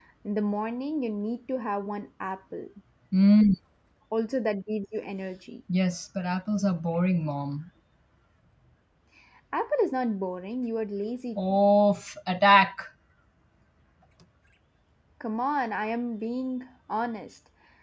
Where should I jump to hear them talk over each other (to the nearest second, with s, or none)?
none